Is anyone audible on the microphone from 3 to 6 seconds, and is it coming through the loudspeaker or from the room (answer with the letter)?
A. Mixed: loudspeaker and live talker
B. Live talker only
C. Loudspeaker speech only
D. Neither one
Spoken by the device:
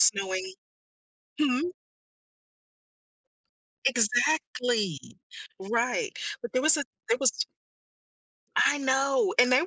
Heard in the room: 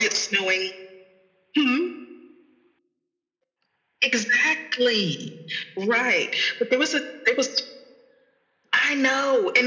C